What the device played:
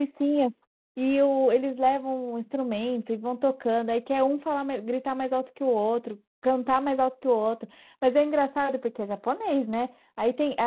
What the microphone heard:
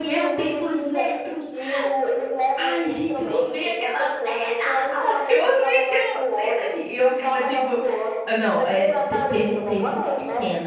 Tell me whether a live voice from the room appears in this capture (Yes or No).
Yes